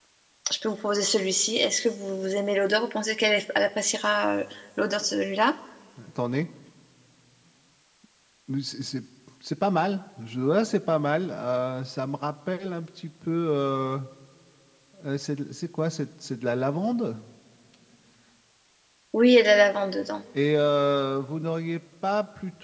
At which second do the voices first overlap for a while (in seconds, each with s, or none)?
none